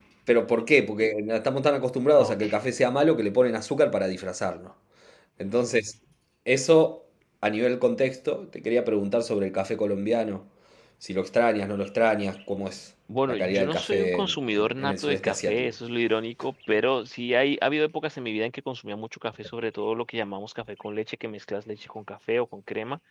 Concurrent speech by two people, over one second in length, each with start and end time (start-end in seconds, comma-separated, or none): 13.3-15.7